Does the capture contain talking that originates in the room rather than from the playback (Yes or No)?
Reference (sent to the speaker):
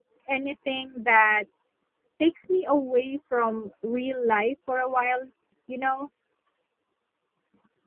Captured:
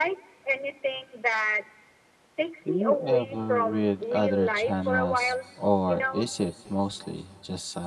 Yes